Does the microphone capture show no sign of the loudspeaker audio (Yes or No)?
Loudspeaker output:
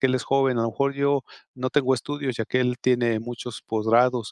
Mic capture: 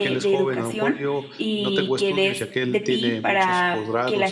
No